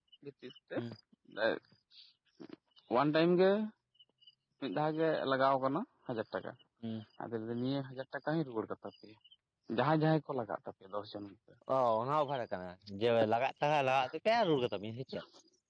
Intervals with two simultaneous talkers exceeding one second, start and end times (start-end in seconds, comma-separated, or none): none